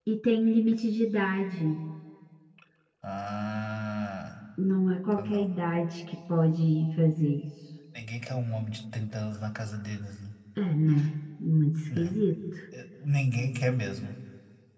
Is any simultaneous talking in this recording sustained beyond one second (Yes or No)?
No